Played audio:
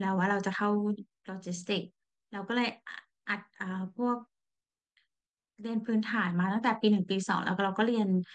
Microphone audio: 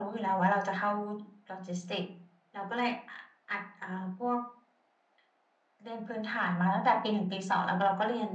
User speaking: No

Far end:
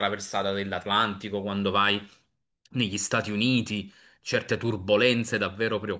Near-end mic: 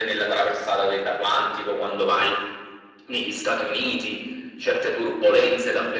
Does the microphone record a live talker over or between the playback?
No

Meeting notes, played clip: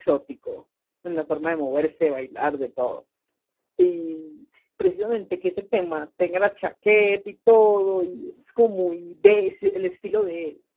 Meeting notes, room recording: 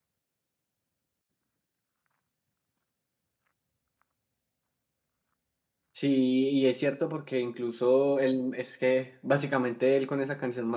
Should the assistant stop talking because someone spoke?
Yes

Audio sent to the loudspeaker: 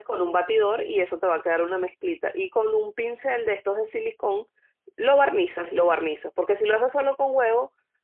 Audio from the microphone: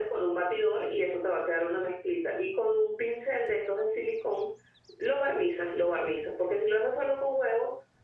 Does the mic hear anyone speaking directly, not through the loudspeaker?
No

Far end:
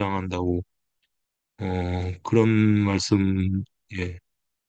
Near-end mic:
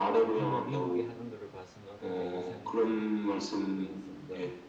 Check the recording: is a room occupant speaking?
Yes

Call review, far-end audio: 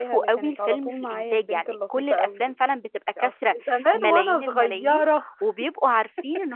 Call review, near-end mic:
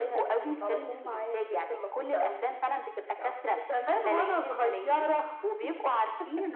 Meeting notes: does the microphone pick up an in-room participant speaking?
No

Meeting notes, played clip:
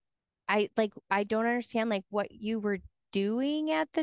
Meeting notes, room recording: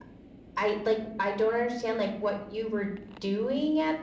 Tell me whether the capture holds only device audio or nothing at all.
Yes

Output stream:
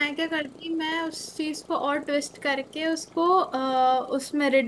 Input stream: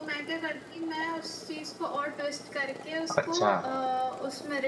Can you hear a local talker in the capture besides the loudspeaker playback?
Yes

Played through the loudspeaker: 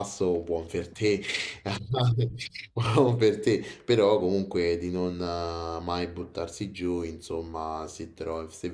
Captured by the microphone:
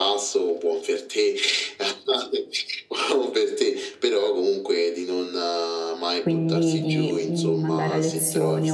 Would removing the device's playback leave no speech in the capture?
No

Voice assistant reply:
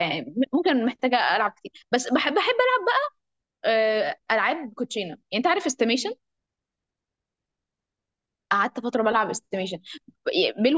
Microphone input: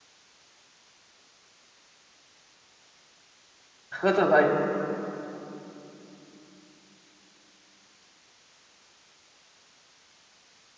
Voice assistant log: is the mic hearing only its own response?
No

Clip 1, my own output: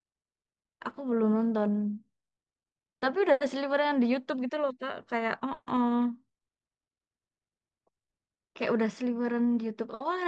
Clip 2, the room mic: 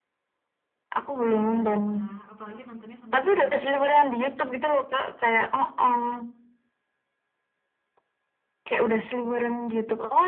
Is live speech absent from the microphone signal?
No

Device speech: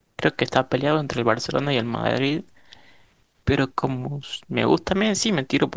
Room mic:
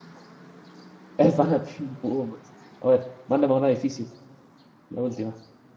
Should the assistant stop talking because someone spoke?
Yes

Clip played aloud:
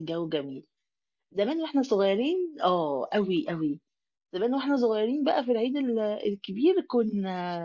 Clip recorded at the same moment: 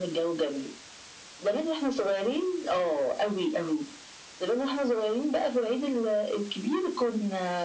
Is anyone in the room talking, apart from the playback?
No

